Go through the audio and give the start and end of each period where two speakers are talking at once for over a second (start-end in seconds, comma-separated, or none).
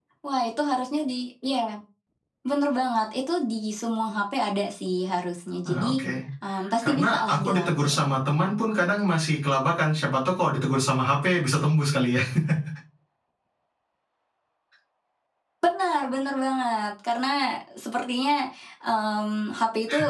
6.8-8.1